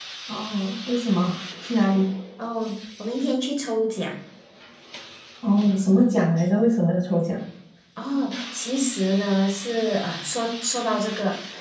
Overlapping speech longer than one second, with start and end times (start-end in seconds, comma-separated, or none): none